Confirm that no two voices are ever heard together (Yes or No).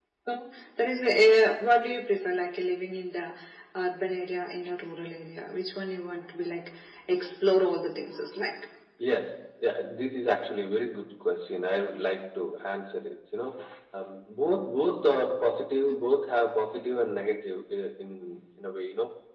Yes